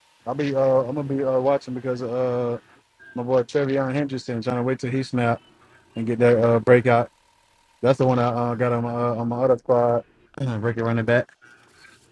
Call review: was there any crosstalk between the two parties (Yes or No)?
No